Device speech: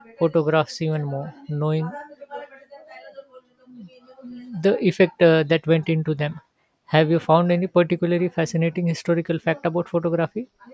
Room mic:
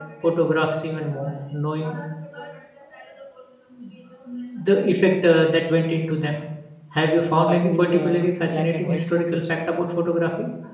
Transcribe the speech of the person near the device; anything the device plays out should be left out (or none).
by old uh, black and white photos.